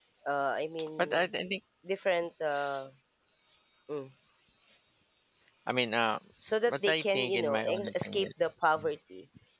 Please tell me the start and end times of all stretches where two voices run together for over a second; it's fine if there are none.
6.7-8.2

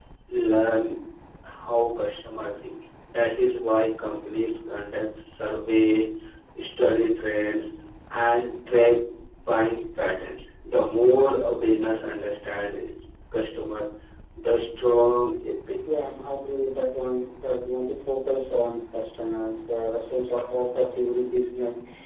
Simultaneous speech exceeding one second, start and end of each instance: none

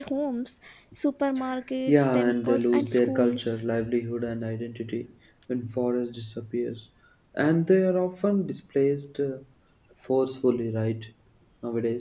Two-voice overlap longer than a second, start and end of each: 1.9-3.6

